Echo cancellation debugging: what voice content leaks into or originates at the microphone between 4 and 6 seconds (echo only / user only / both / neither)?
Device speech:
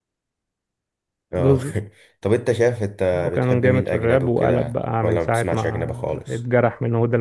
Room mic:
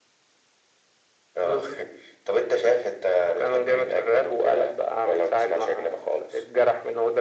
echo only